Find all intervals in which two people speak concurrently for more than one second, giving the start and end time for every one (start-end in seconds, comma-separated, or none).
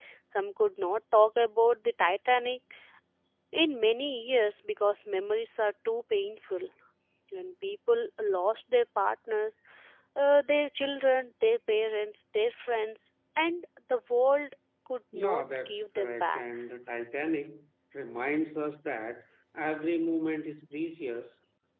15.2-16.4